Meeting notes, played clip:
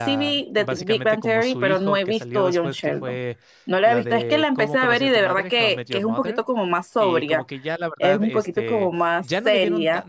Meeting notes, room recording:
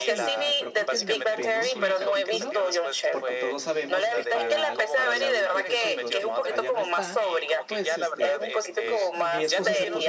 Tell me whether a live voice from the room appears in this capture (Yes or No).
Yes